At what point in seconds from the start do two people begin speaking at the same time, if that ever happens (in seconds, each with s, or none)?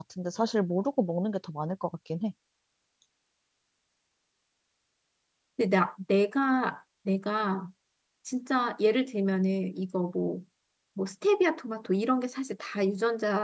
none